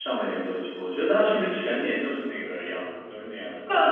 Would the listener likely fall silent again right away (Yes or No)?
No